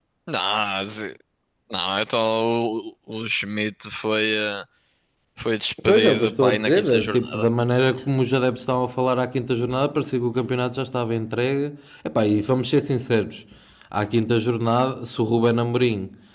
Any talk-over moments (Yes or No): Yes